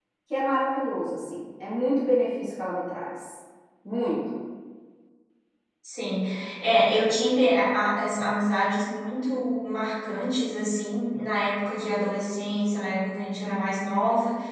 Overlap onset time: none

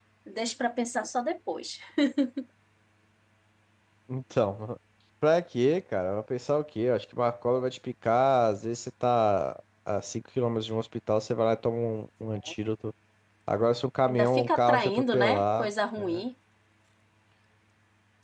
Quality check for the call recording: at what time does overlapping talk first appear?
14.1 s

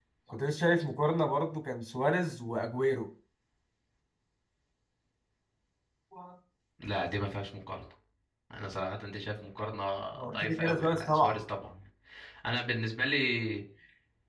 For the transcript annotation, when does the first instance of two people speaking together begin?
10.2 s

